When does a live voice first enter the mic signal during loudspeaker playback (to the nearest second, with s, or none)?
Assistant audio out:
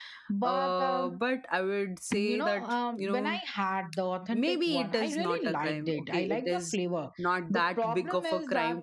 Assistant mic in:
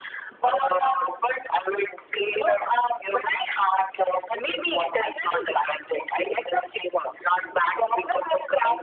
none